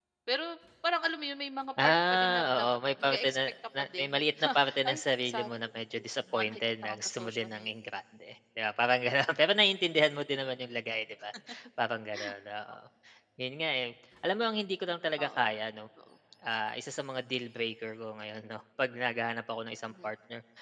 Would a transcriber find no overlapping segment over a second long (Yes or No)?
No